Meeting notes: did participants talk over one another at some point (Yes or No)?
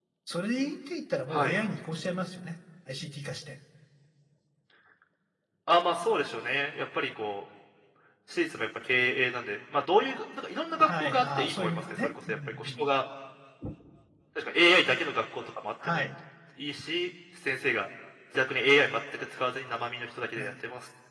Yes